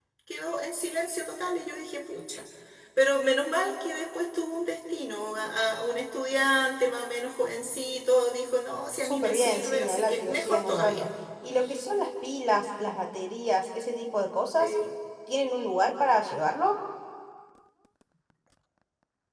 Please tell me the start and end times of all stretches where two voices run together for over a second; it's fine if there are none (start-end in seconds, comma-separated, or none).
9.0-11.1